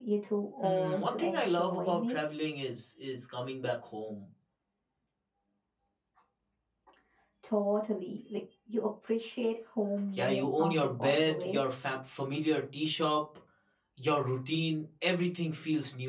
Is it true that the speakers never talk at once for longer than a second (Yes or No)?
No